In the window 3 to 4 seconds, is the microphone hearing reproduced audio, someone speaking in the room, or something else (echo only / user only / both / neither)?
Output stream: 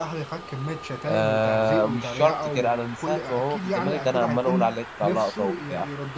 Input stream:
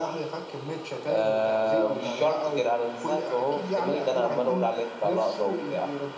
echo only